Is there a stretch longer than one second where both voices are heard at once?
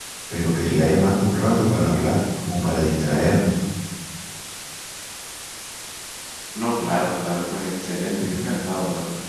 No

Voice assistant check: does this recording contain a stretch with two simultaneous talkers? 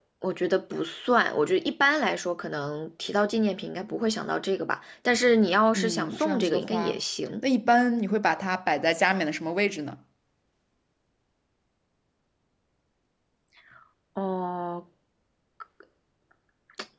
Yes, from 5.8 s

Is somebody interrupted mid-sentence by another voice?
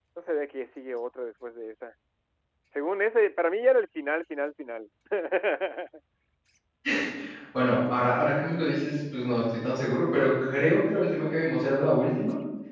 No

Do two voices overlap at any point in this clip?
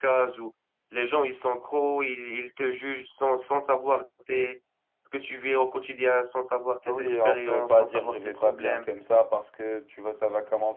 Yes, from 6.9 s

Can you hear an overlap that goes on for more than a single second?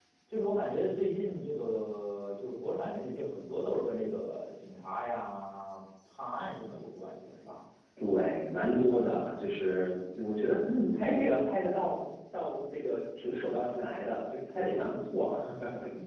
No

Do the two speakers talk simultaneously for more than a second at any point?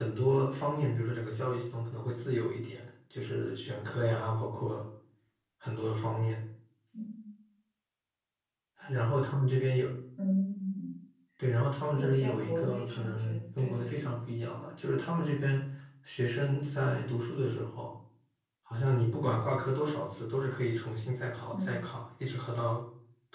Yes, from 11.9 s

